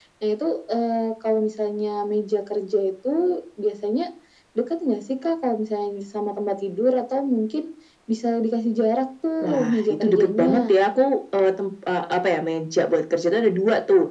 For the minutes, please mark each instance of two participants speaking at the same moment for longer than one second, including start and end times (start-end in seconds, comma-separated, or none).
9.4-10.8